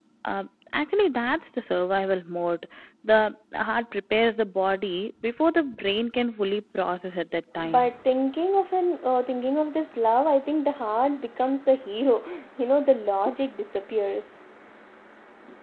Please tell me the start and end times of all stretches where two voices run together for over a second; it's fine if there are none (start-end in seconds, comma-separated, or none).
none